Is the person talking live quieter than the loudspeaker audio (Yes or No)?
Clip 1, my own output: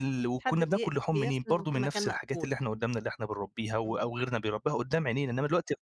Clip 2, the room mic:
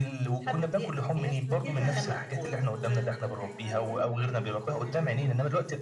Yes